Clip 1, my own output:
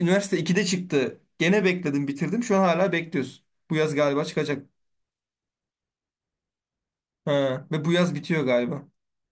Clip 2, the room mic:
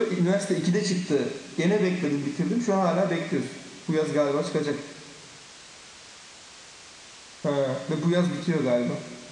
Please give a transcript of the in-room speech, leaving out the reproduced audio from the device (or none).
none